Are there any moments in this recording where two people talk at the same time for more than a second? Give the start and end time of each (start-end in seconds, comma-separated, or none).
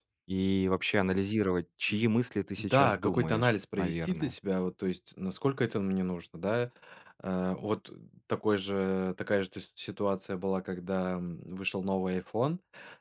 2.6-4.3